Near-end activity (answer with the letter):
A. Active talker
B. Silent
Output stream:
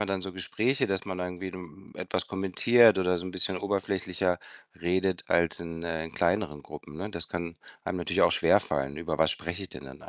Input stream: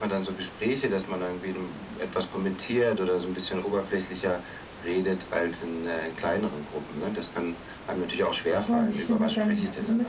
A